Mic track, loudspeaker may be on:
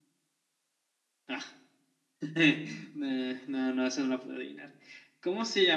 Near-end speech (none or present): none